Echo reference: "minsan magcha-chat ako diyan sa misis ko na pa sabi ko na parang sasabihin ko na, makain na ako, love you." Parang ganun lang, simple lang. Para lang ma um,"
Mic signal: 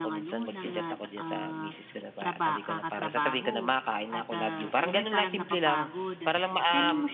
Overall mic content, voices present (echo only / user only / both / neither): both